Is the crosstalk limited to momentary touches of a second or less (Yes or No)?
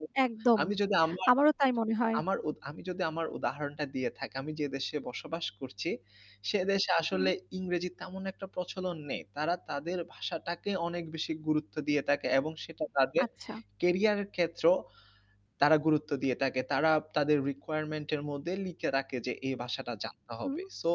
Yes